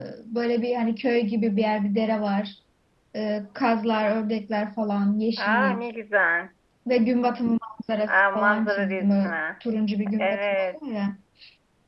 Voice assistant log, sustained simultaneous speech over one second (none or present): present